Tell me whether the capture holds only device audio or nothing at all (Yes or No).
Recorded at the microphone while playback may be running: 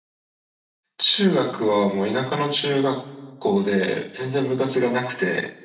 No